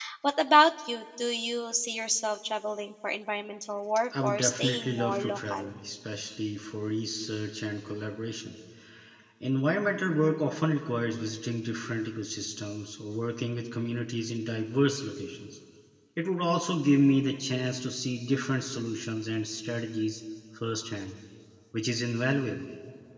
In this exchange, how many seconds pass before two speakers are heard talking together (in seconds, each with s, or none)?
4.1 s